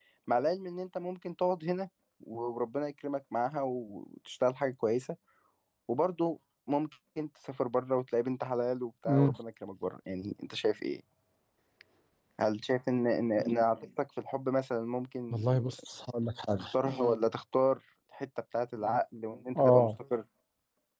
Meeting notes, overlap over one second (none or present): none